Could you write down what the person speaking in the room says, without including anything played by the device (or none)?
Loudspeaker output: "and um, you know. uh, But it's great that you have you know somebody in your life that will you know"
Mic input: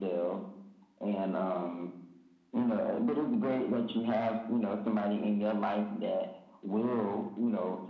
none